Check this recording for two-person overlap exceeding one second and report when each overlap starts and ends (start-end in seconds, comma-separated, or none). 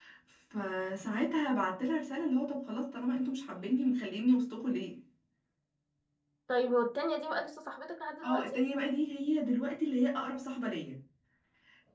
none